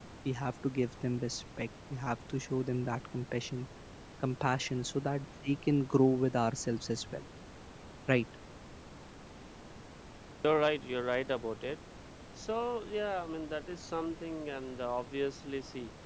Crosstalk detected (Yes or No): No